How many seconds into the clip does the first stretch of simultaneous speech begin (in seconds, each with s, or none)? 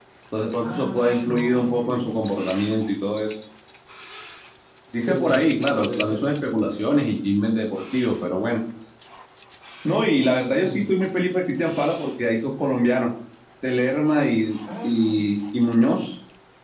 0.7 s